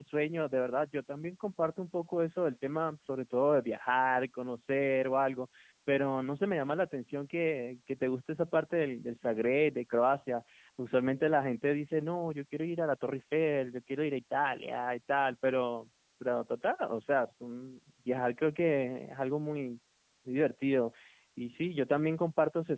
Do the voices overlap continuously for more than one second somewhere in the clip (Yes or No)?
No